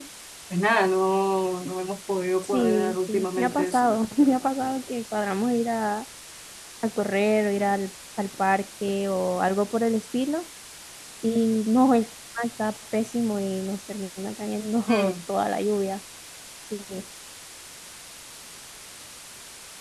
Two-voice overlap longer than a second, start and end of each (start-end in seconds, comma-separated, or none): 2.4-3.9